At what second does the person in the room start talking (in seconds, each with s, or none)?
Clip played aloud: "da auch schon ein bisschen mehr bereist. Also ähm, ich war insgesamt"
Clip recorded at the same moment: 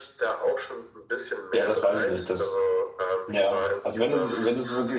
1.5 s